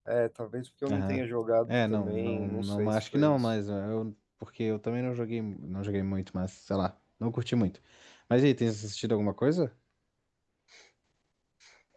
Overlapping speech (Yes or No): Yes